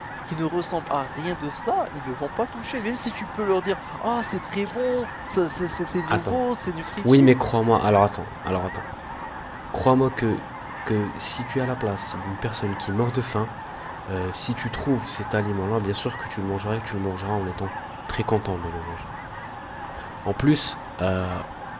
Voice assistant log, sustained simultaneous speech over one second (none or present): none